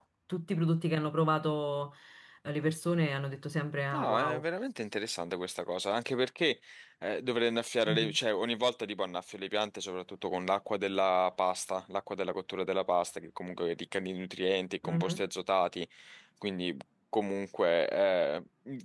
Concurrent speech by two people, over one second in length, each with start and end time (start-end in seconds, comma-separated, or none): none